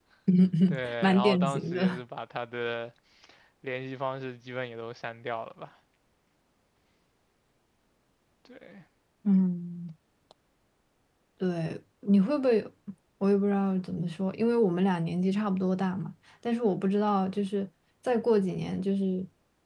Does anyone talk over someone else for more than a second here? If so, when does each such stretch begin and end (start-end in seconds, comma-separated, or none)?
0.7-2.0